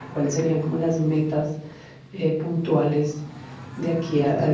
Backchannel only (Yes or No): No